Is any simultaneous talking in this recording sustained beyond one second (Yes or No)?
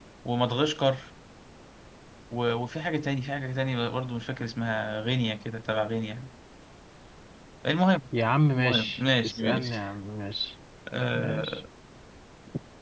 Yes